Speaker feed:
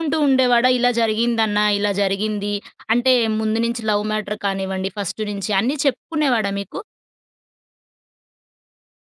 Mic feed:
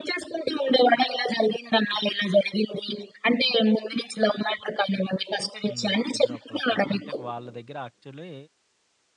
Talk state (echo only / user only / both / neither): both